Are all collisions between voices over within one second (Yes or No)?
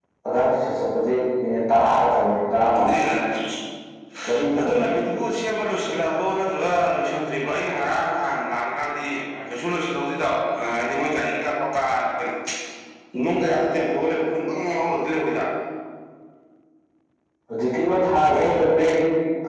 Yes